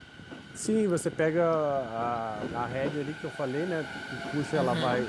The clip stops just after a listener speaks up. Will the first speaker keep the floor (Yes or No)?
Yes